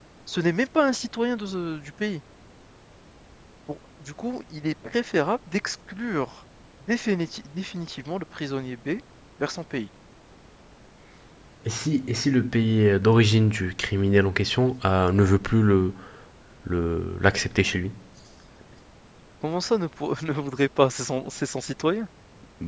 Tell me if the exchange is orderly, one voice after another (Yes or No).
Yes